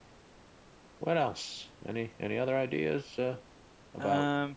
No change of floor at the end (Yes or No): Yes